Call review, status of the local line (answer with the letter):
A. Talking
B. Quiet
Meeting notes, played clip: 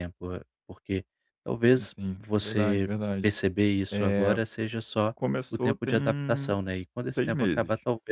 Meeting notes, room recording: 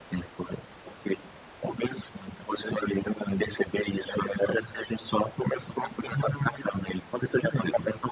B